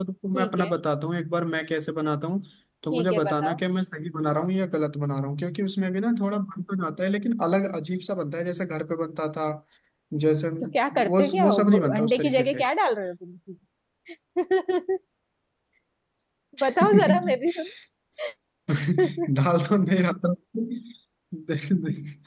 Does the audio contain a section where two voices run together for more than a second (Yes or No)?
Yes